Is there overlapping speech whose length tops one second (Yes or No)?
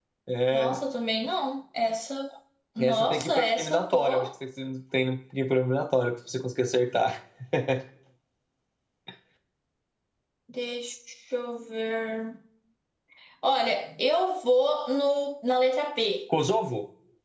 Yes